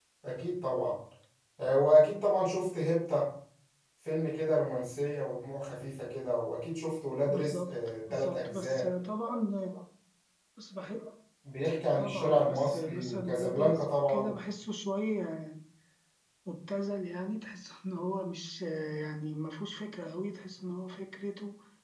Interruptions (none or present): present